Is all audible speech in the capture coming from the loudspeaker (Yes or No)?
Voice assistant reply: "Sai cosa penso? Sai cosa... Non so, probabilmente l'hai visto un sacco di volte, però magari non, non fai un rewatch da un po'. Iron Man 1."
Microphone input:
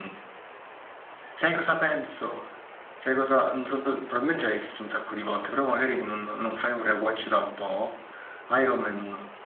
Yes